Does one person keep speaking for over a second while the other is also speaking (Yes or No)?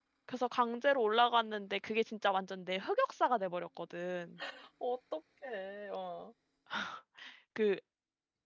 No